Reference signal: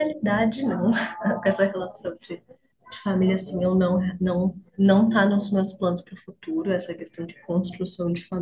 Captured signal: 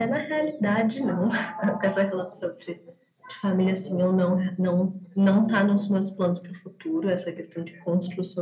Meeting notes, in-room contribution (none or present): none